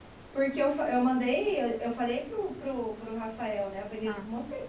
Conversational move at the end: listening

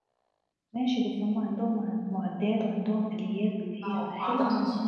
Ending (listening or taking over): taking over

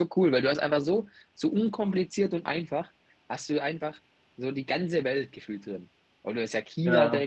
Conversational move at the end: listening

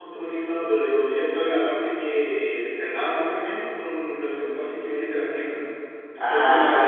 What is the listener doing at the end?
listening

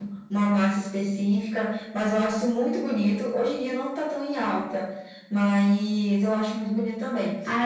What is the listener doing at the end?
taking over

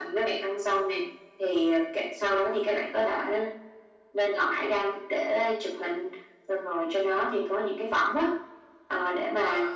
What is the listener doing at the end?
listening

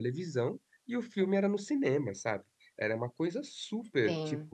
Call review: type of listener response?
listening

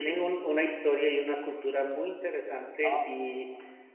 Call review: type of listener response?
listening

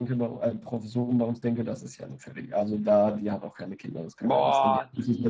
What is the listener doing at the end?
taking over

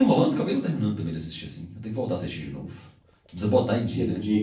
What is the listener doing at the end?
taking over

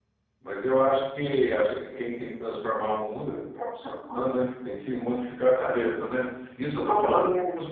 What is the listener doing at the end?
listening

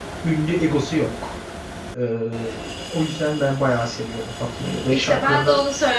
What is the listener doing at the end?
taking over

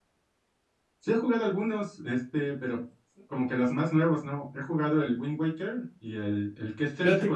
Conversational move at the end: listening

